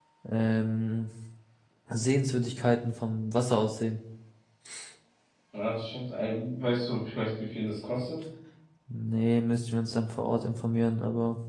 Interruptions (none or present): none